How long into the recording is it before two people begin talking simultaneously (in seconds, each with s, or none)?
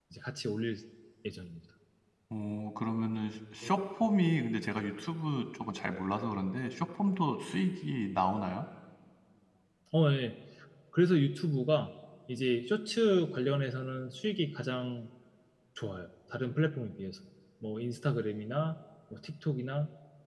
none